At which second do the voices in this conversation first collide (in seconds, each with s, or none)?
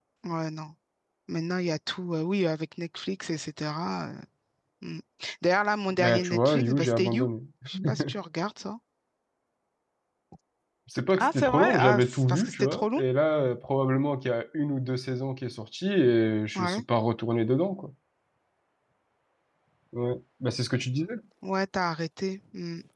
6.0 s